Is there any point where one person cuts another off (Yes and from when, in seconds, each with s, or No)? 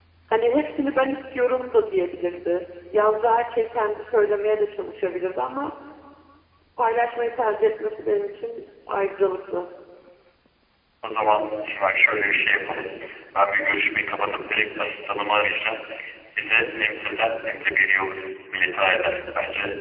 No